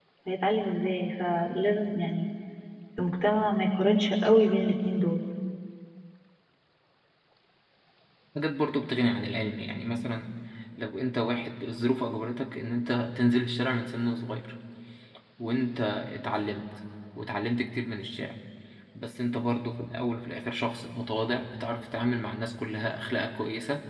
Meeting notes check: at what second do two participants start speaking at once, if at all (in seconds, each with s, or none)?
none